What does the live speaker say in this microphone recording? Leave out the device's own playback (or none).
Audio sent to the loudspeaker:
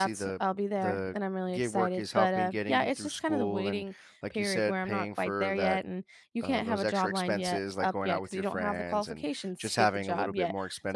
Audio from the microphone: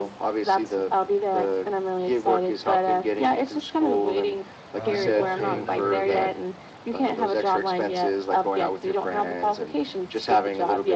uh, you also do another gig